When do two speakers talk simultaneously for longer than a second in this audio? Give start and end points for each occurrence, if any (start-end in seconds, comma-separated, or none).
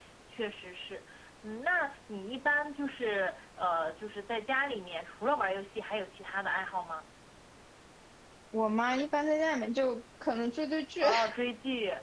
none